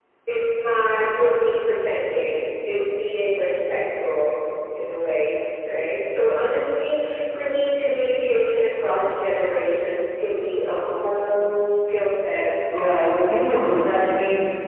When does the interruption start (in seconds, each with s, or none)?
12.7 s